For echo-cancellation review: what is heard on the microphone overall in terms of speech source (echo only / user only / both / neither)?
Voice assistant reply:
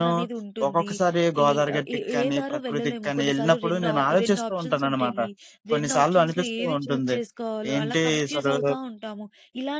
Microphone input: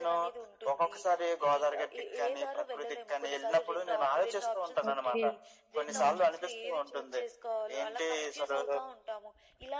both